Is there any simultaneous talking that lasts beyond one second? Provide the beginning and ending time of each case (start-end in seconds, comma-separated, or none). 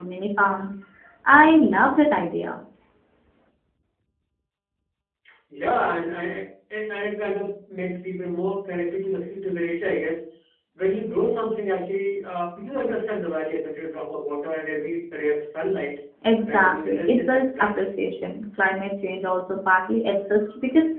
16.4-17.8